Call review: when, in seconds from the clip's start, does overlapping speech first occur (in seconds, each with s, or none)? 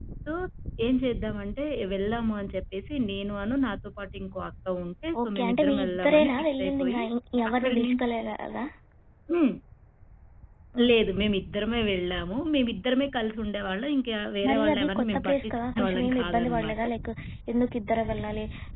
5.2 s